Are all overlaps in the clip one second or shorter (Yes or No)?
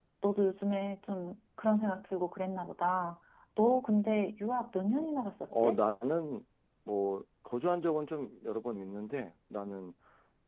Yes